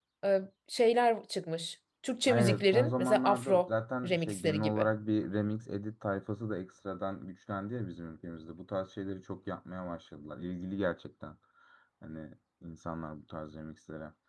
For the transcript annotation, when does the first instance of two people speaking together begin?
2 s

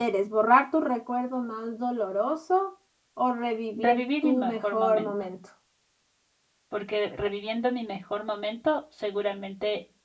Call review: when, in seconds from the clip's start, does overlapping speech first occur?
4 s

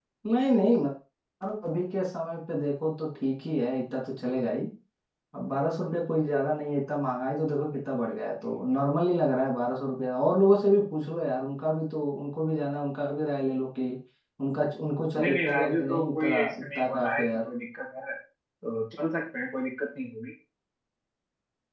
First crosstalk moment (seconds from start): 15 s

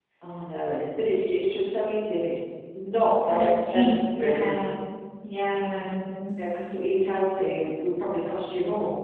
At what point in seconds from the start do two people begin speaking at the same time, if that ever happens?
3 s

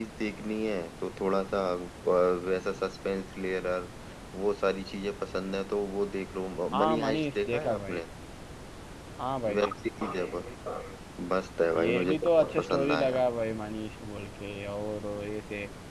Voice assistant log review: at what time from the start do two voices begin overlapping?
7 s

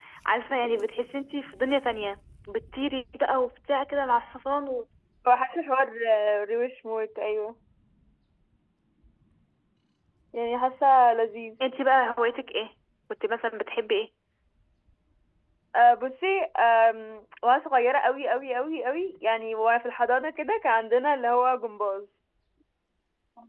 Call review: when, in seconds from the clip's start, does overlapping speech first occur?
none

